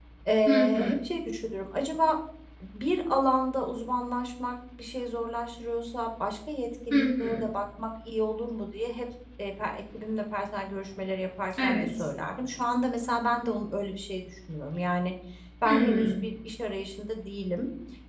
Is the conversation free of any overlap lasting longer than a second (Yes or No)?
Yes